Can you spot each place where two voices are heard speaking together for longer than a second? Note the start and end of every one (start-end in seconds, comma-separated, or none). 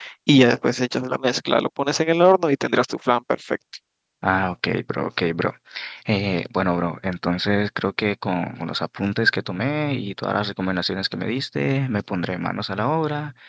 none